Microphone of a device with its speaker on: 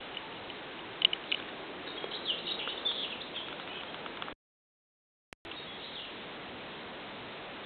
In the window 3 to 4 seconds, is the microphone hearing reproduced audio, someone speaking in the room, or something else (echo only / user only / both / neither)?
neither